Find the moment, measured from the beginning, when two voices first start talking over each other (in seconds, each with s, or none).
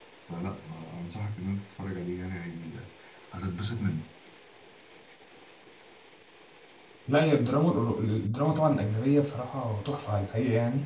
none